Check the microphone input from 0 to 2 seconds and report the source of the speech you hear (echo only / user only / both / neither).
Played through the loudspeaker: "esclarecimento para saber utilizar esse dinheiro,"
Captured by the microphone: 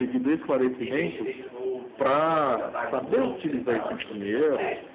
both